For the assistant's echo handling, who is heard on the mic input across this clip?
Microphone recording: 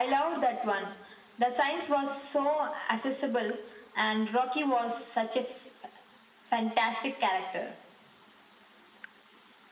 echo only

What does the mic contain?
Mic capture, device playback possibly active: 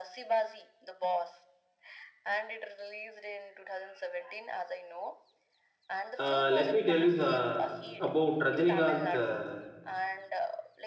both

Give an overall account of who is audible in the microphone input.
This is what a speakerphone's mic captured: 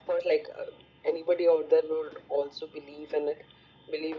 echo only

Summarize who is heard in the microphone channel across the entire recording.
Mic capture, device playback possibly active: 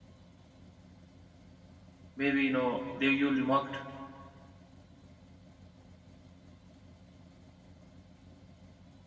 user only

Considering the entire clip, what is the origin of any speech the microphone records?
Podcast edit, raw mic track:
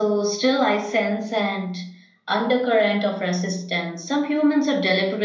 echo only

